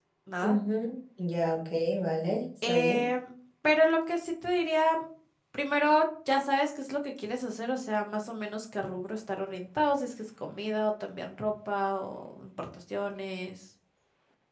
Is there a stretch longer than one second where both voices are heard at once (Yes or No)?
No